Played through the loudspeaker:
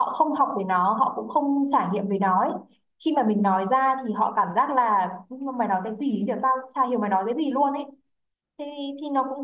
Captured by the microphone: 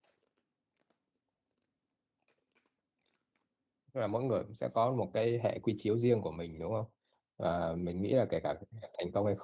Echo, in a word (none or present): none